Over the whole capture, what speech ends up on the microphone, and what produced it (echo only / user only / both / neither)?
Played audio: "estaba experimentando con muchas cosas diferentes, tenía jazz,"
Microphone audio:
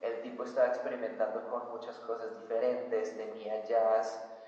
echo only